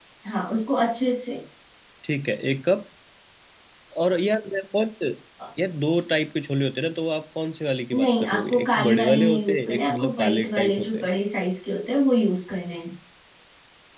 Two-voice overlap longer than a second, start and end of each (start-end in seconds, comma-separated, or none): 7.9-11.1